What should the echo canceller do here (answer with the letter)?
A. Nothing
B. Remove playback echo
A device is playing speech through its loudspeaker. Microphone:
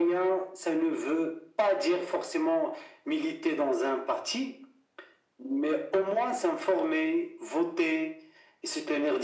B